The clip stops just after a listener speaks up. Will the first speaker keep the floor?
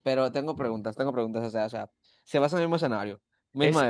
No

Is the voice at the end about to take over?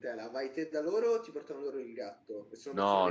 Yes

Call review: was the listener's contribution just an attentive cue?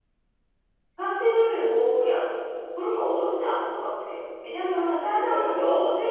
Yes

